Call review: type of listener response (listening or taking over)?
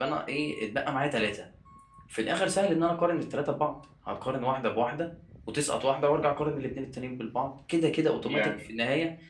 listening